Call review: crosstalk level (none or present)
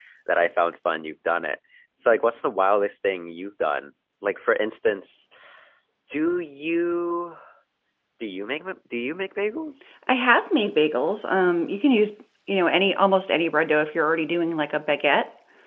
none